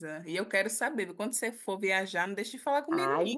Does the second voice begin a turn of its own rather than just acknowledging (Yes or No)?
Yes